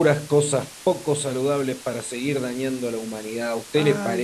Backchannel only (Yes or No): No